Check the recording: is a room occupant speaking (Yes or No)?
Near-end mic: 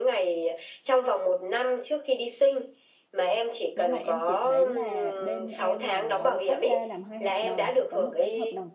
Yes